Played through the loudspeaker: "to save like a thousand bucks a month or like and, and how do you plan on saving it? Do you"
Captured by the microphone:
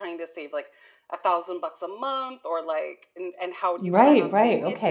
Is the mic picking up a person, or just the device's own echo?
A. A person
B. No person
A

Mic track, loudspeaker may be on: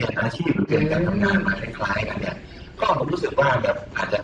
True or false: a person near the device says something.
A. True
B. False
A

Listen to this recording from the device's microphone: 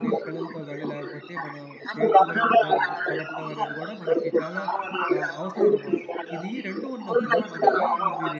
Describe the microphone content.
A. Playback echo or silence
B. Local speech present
B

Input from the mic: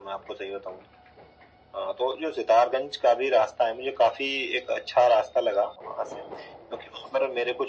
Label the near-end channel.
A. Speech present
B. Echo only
B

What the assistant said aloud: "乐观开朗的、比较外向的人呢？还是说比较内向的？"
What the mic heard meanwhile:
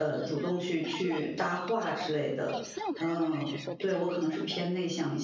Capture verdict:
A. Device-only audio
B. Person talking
B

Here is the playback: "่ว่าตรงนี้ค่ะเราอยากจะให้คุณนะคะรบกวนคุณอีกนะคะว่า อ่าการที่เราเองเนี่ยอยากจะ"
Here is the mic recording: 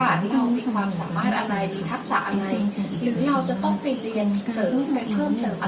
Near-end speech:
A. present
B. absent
A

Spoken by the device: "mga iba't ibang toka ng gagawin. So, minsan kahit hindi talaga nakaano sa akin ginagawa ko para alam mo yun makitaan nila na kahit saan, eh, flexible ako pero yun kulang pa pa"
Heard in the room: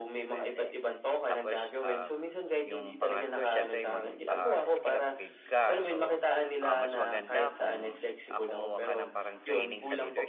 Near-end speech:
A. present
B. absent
A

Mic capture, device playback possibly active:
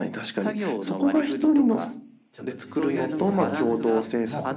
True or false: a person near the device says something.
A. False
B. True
B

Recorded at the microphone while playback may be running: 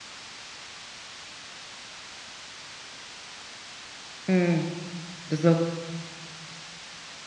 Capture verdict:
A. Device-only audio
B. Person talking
B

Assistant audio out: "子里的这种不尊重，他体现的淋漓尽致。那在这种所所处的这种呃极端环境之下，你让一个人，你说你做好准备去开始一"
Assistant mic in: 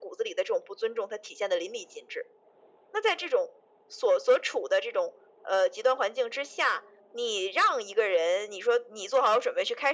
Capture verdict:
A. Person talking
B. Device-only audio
B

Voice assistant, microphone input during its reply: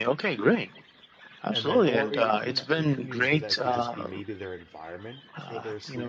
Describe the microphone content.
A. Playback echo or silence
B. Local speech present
B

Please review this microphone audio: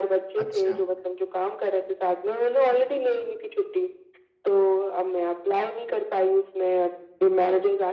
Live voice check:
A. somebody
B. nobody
A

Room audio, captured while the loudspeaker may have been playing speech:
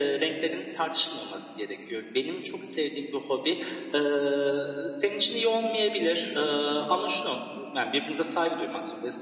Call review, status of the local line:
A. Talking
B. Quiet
B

